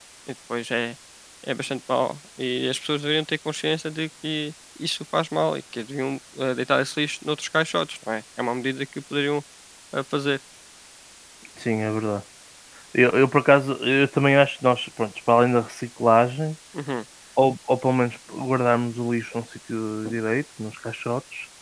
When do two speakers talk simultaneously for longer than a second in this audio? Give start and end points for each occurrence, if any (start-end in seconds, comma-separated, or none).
none